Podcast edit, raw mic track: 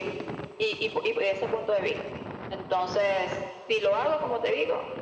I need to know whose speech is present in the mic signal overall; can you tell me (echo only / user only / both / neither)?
echo only